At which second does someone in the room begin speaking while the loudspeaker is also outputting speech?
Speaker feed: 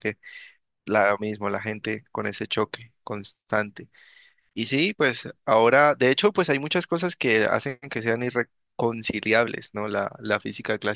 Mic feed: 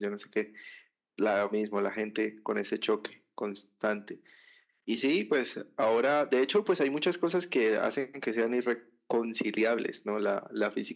none

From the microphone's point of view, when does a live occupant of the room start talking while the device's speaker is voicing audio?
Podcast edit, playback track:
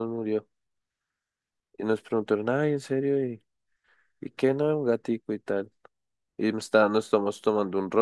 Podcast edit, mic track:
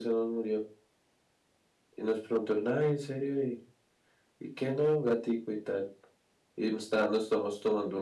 none

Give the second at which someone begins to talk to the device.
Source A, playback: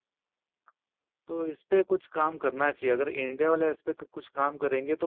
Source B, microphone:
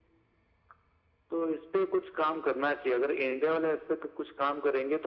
none

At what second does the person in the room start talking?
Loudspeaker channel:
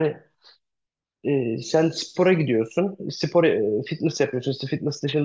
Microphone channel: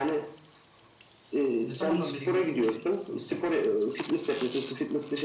1.7 s

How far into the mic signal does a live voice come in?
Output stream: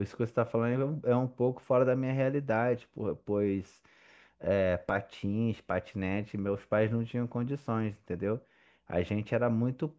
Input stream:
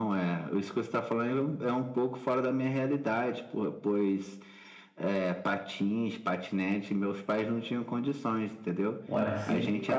9.1 s

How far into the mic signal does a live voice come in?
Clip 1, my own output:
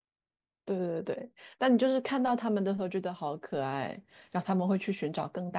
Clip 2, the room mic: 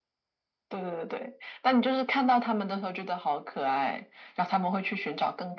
none

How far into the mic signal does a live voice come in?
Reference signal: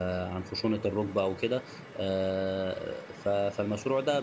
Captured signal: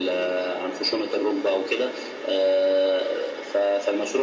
none

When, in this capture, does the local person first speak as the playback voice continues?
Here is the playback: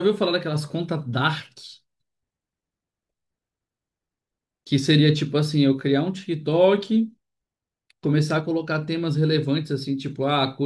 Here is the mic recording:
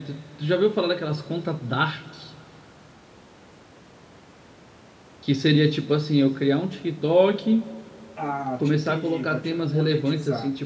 8.1 s

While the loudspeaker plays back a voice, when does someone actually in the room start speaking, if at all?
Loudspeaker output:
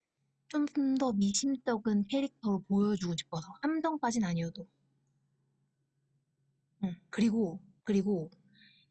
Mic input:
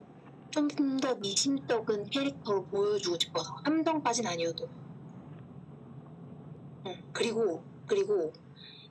none

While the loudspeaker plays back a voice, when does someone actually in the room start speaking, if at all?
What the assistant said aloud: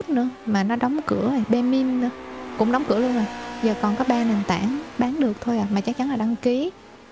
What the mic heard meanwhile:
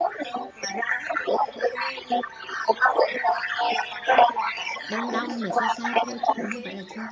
4.9 s

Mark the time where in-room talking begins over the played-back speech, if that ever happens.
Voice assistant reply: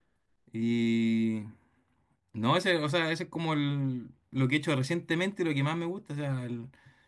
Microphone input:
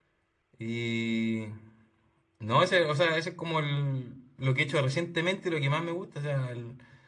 none

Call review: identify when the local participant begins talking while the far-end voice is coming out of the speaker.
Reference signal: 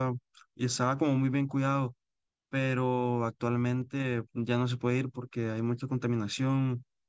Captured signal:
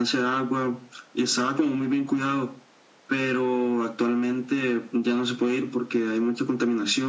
none

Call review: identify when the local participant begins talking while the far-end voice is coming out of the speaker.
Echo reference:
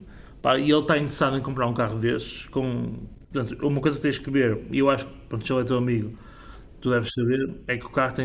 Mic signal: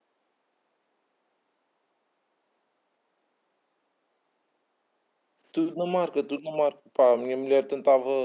5.5 s

